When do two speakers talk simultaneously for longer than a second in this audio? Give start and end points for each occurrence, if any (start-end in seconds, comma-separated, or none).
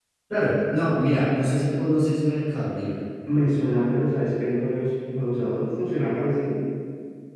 none